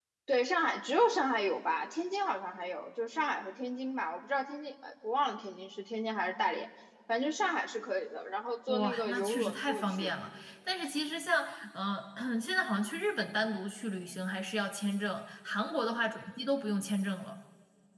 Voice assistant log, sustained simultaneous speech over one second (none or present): present